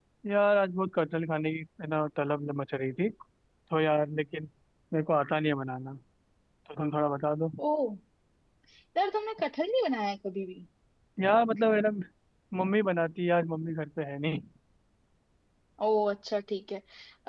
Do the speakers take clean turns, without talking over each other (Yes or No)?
Yes